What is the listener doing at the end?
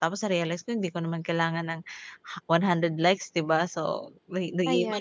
listening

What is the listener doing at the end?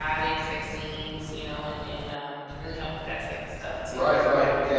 taking over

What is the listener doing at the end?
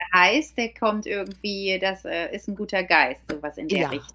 taking over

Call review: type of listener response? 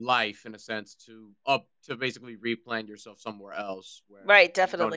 taking over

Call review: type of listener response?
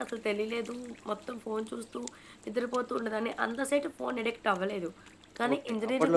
taking over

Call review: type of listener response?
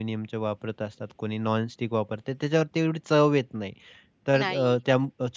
listening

